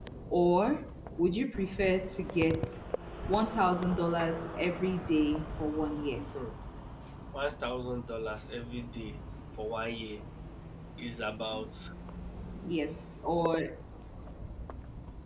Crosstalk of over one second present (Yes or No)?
No